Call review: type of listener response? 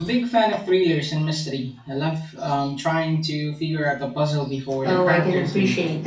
taking over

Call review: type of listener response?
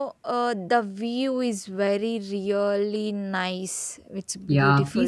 taking over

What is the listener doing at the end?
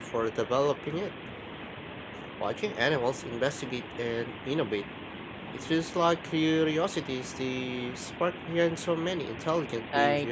taking over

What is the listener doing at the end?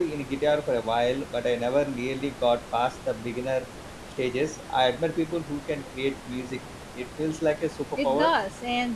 taking over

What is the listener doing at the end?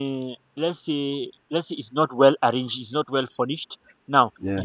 listening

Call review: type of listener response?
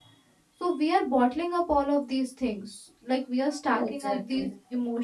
listening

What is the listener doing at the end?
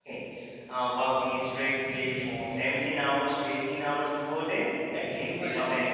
listening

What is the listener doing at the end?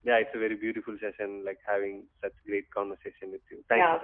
taking over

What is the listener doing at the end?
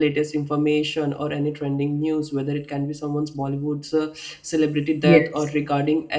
listening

